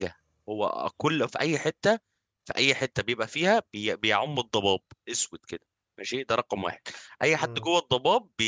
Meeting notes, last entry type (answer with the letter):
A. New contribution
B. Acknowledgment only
B